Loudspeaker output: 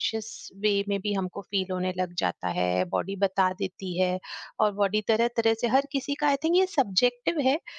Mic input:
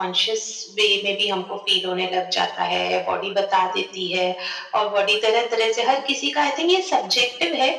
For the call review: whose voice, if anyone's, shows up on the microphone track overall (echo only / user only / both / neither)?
echo only